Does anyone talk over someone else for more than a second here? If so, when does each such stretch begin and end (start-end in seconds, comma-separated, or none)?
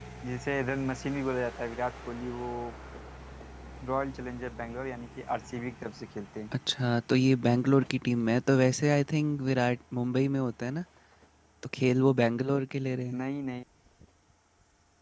none